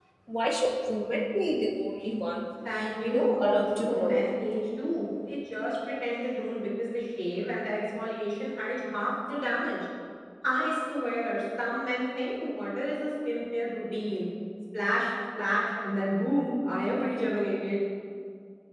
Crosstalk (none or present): present